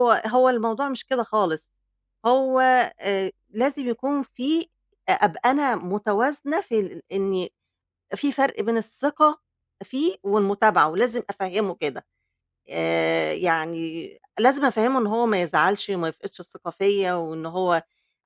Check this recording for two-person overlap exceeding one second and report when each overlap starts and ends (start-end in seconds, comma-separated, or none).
none